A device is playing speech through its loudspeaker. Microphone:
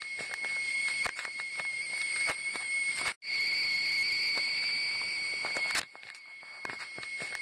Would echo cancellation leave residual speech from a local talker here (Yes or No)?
No